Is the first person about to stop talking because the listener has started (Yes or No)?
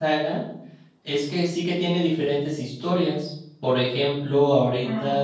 No